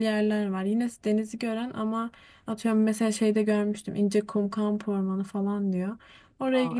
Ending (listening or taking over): listening